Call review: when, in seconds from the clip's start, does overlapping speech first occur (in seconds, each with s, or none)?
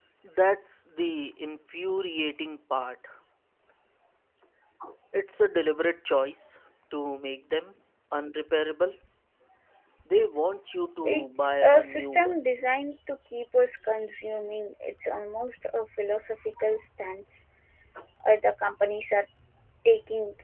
11.0 s